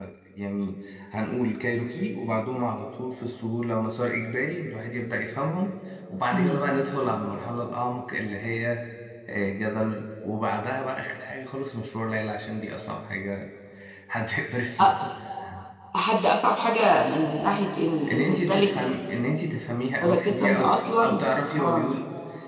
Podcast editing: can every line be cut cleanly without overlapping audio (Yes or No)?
No